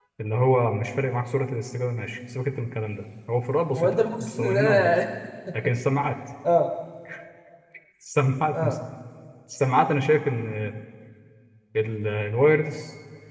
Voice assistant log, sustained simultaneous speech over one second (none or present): present